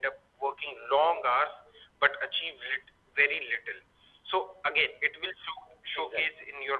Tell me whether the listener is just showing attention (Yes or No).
Yes